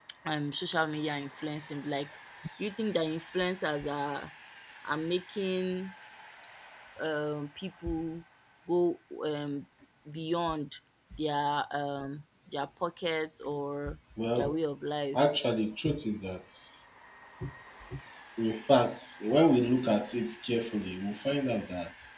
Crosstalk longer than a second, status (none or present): none